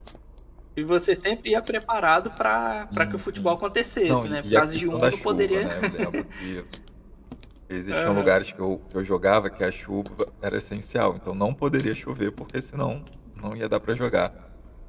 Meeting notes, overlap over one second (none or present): present